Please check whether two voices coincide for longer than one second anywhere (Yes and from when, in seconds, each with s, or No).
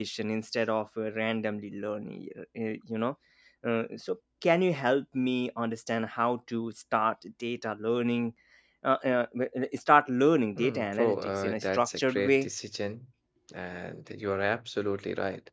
Yes, from 10.6 s